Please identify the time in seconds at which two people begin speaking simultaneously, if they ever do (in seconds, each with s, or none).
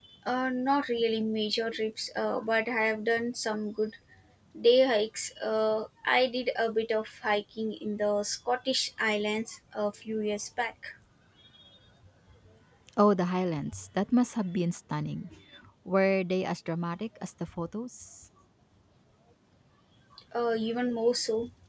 none